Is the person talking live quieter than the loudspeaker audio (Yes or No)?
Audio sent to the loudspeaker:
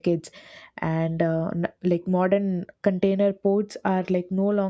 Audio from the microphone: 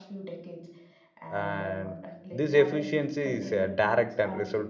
No